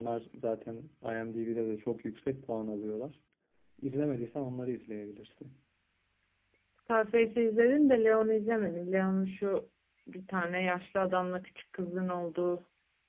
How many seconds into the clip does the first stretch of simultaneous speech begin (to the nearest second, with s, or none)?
none